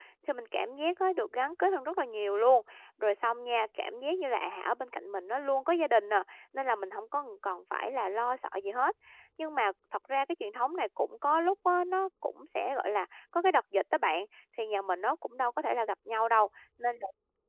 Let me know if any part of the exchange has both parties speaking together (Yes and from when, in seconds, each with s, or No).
No